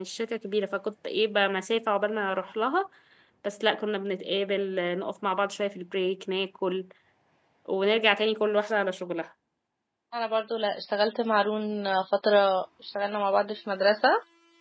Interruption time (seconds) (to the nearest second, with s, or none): none